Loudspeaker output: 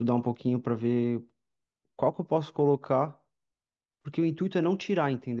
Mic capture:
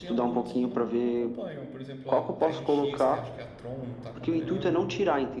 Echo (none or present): present